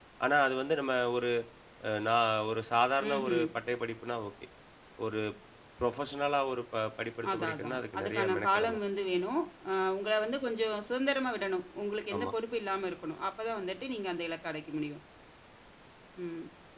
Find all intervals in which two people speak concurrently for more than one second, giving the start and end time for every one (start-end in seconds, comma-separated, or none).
7.3-8.8